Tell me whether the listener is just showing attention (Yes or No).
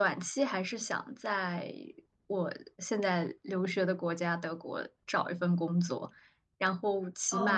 Yes